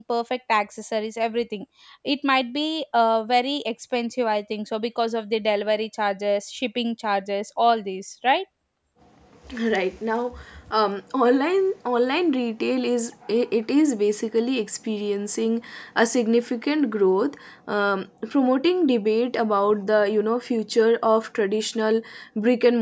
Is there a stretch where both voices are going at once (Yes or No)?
No